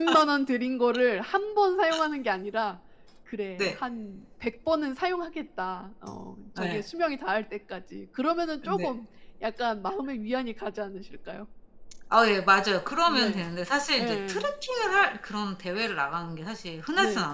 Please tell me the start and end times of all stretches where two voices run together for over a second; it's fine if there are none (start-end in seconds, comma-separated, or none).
none